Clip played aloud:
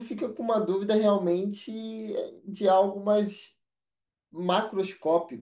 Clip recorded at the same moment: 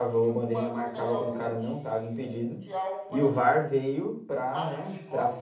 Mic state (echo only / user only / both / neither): both